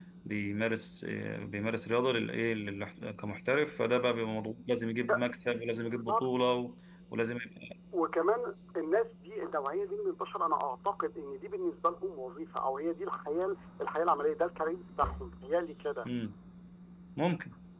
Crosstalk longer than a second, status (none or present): none